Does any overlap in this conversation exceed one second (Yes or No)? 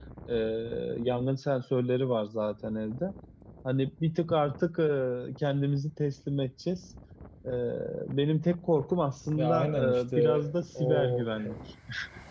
Yes